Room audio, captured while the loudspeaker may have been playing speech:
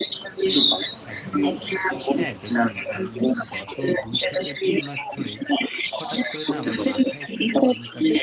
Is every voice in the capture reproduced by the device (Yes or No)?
No